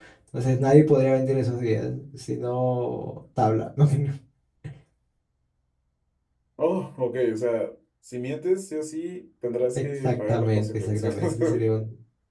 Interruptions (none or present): present